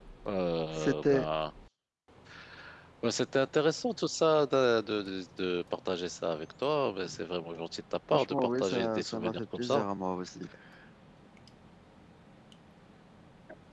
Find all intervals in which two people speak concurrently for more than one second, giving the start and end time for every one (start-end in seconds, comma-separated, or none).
8.1-9.9